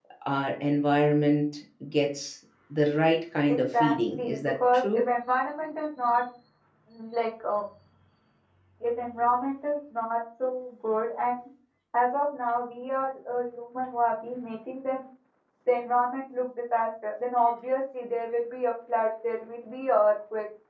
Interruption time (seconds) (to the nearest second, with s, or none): 3 s